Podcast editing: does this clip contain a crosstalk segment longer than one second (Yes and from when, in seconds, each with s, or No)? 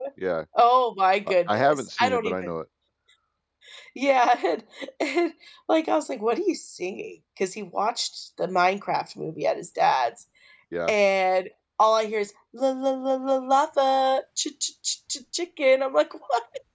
Yes, from 1.3 s